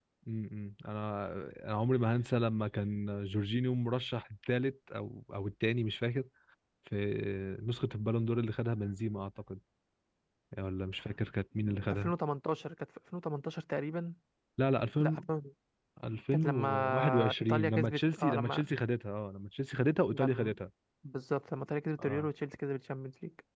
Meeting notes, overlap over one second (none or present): present